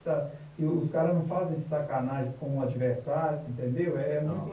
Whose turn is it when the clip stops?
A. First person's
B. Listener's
A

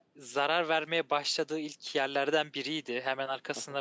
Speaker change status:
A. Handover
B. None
B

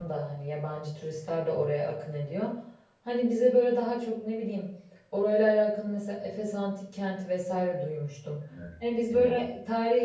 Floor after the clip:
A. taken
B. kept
B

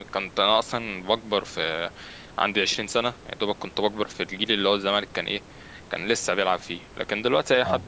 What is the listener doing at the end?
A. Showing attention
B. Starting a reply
A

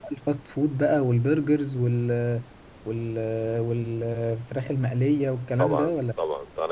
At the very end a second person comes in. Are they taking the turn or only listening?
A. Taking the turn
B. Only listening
A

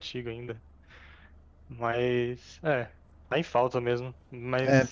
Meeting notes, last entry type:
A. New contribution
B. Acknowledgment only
A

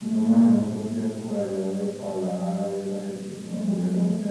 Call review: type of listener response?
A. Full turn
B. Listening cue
A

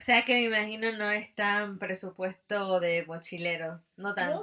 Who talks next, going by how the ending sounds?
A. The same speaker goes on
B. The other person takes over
B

